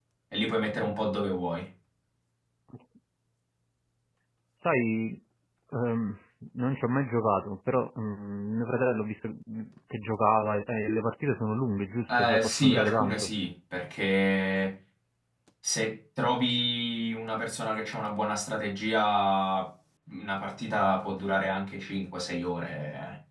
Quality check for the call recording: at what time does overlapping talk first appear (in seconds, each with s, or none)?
12.1 s